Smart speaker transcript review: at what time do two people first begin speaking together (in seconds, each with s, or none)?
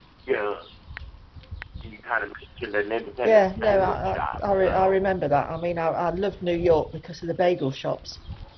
3.2 s